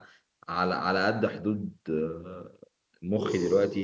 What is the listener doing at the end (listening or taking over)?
listening